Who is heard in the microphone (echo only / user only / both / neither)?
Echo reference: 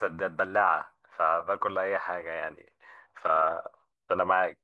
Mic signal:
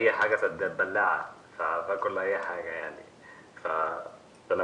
echo only